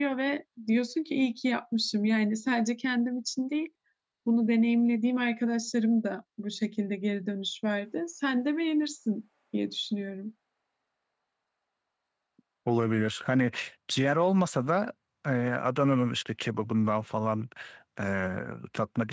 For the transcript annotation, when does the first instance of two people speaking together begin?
none

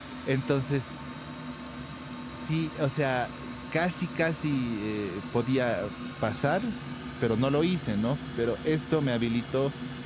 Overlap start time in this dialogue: none

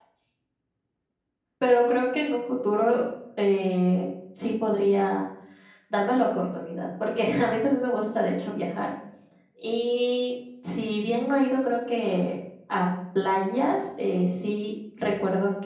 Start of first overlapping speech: none

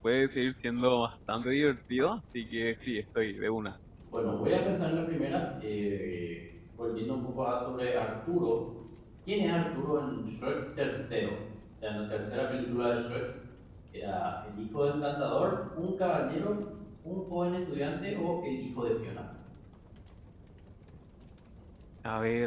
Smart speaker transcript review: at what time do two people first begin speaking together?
none

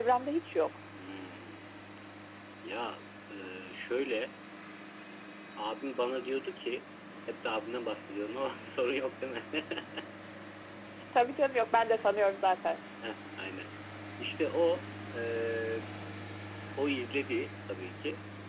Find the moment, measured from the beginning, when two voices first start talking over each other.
none

